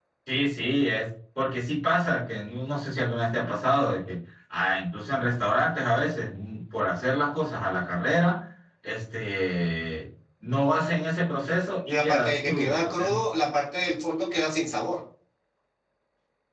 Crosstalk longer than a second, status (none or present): present